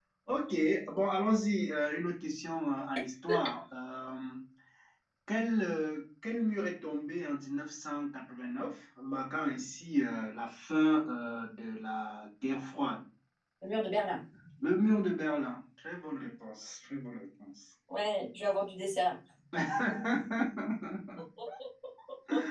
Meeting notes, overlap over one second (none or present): none